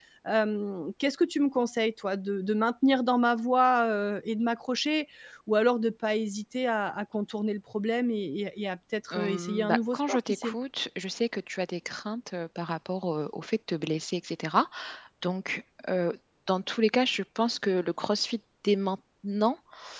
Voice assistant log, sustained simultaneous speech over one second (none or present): present